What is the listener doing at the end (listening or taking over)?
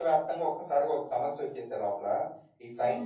listening